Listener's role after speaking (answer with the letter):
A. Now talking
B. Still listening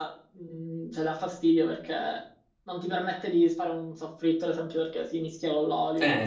A